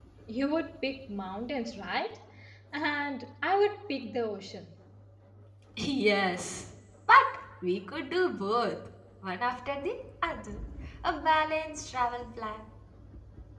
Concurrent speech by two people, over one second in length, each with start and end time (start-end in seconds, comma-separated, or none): none